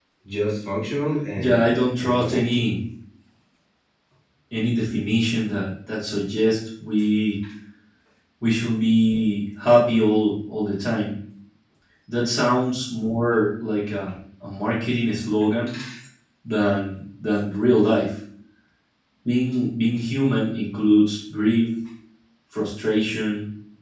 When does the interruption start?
1.4 s

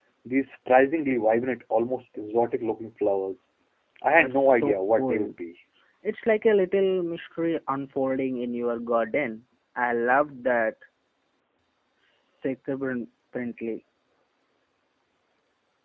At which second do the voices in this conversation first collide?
4.1 s

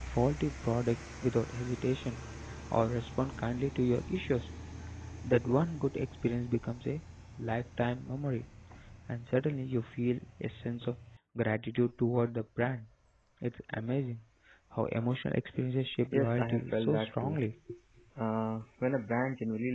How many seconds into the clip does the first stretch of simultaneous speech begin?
16.1 s

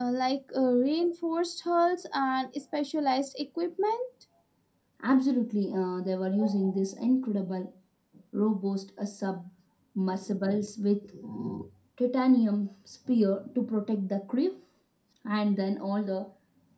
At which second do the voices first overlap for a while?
none

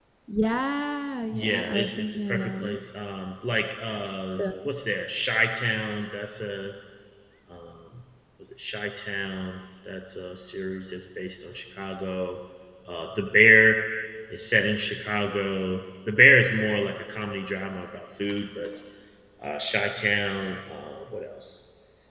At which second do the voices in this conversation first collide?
1.3 s

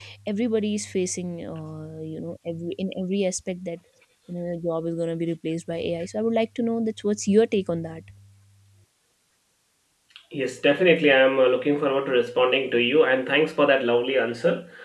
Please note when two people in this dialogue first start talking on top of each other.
none

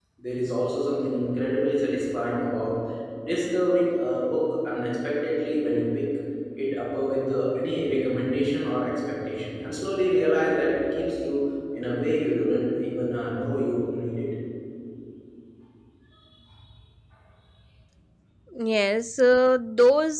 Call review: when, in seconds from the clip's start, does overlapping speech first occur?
none

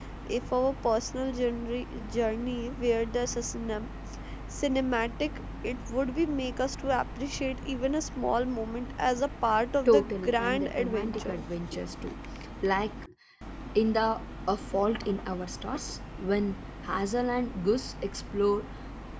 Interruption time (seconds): 9.8 s

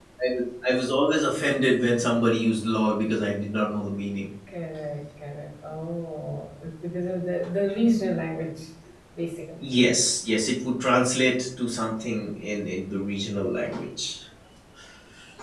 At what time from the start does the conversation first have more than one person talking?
none

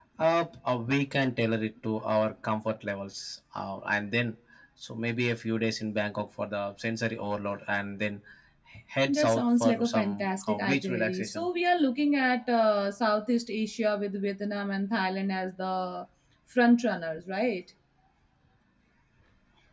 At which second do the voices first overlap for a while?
9.1 s

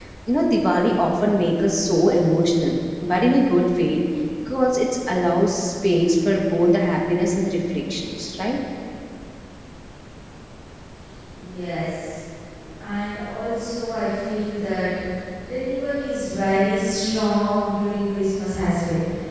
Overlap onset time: none

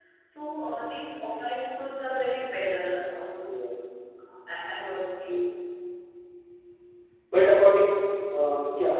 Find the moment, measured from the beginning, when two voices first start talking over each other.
none

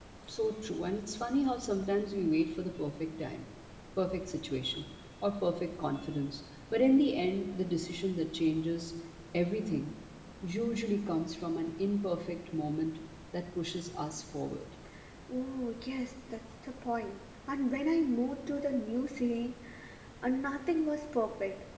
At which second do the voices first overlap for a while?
none

